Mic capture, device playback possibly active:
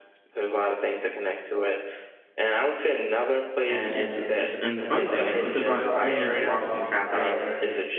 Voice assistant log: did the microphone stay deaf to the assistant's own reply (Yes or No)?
No